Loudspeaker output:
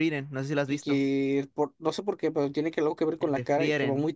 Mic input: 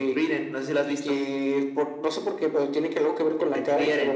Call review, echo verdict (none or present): present